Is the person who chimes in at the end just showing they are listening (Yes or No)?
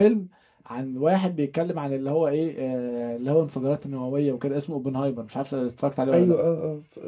No